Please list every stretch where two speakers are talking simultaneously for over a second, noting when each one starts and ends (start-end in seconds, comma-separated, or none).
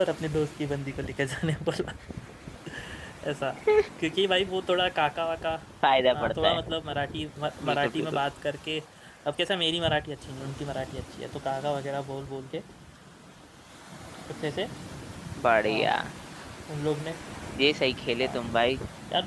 none